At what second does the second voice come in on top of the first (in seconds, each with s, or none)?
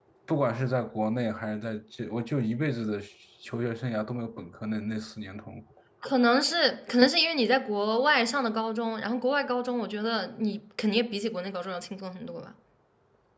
none